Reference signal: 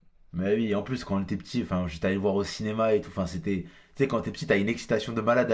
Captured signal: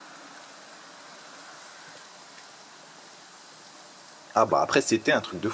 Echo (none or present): none